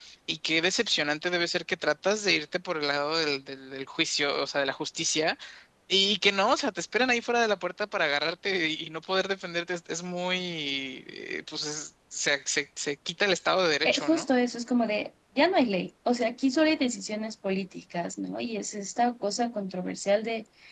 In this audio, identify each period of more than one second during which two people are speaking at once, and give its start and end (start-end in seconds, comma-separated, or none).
none